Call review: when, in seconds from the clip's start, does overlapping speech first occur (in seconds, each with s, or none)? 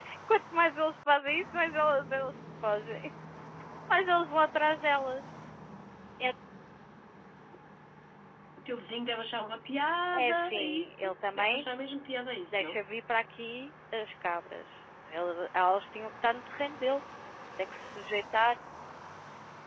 10.1 s